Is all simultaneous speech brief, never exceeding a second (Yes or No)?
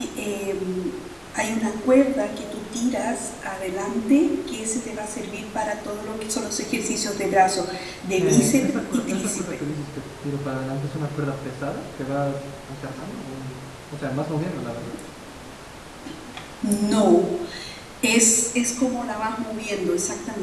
No